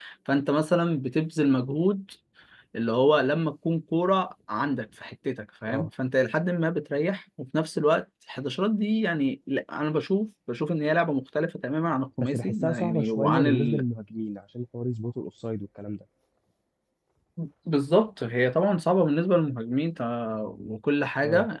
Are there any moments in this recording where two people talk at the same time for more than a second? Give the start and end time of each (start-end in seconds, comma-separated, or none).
12.2-13.8